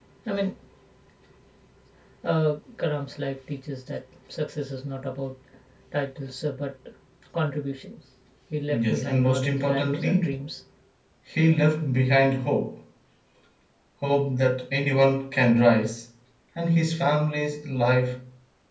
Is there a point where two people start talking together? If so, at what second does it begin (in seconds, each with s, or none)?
8.7 s